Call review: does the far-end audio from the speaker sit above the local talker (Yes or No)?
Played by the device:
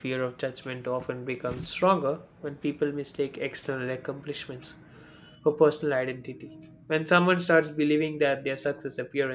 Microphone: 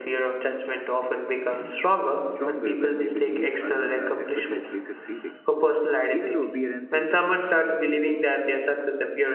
Yes